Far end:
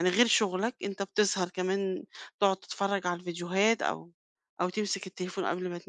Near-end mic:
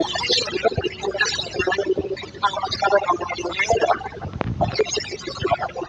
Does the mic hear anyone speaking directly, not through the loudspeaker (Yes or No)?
No